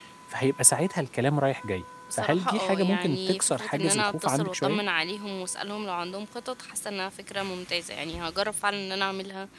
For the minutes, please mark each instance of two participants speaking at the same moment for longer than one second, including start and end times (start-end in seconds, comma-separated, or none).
2.1-4.8